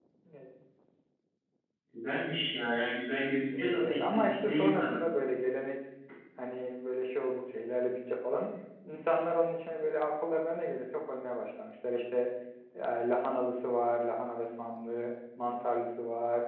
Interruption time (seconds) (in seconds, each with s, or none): 3.5 s